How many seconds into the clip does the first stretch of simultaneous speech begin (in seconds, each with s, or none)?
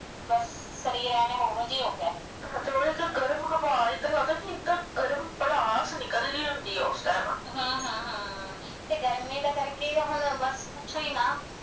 none